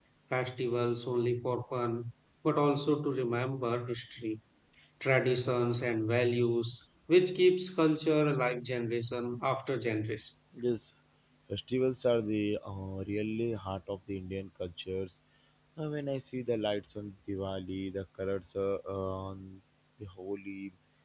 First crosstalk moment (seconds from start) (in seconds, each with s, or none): none